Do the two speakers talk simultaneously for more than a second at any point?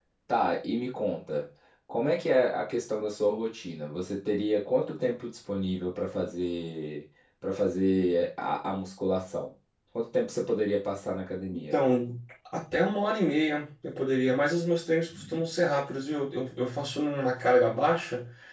No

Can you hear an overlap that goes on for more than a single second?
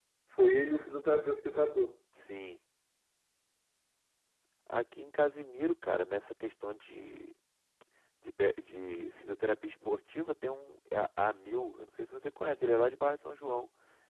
No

